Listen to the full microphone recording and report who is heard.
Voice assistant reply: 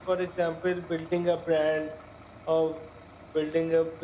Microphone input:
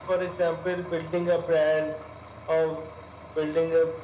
echo only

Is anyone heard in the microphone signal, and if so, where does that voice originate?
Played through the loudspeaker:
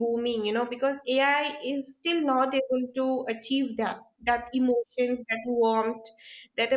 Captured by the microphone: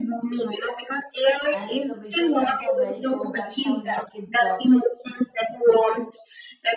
both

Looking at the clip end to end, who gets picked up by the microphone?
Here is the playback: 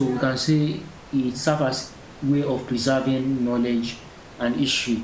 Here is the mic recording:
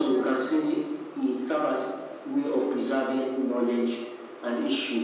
echo only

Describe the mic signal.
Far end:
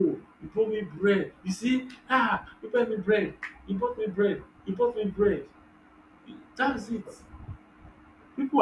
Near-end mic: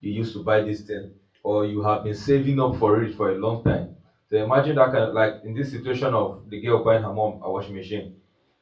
user only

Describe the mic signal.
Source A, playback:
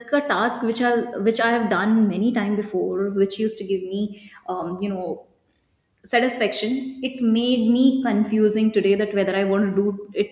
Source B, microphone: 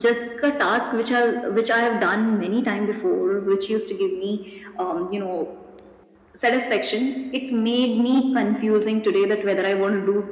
echo only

